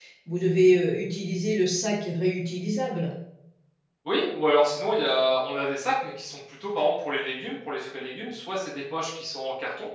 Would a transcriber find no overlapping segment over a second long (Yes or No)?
Yes